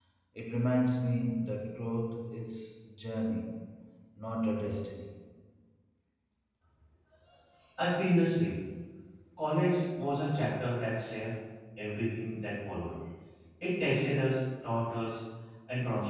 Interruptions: none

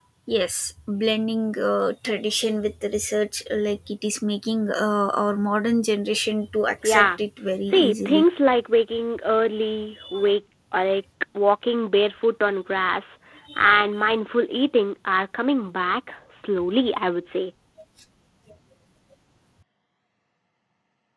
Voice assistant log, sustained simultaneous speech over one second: none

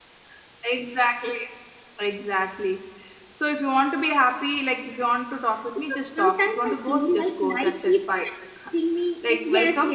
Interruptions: present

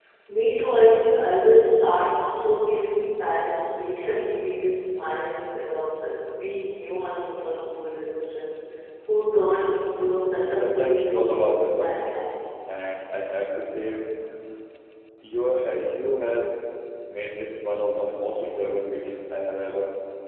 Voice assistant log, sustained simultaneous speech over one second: present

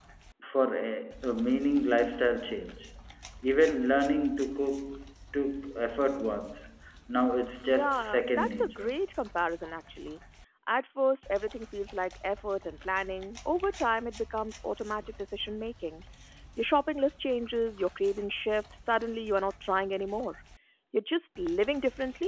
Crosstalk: present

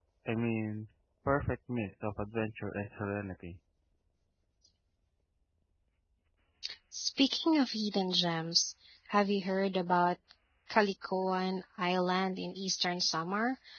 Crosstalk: none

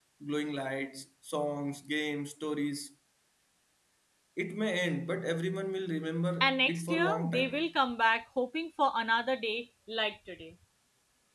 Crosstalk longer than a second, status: present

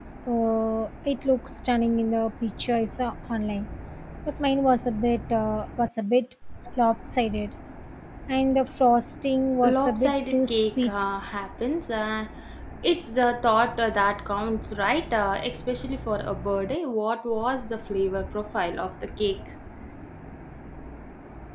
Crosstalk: present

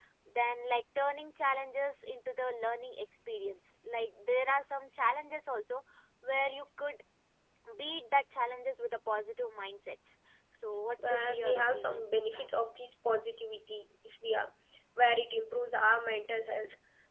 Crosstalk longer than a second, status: present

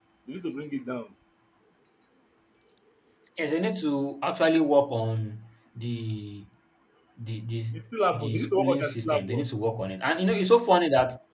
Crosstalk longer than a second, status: present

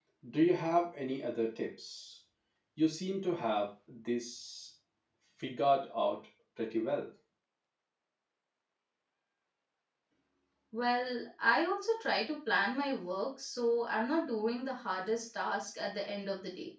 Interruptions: none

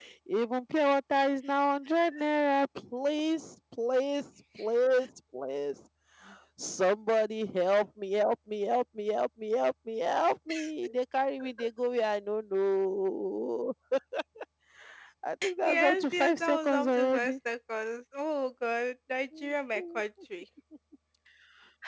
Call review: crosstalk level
present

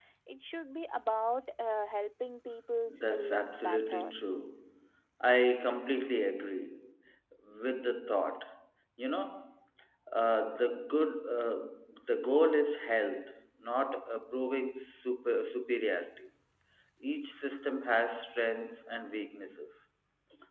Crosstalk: present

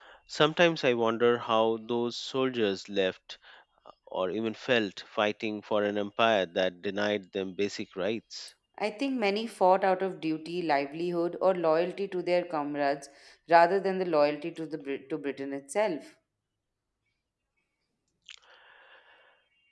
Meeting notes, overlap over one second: none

